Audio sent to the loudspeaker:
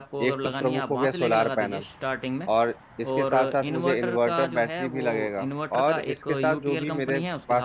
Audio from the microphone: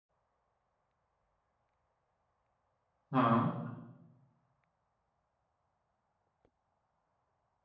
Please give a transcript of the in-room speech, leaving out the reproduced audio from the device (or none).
हाँ